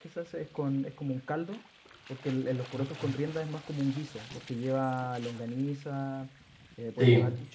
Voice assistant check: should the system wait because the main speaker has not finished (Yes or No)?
Yes